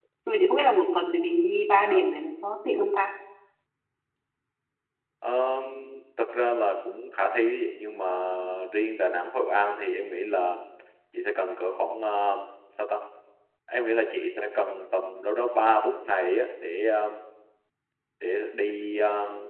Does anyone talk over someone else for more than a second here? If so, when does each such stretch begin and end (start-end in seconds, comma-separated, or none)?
none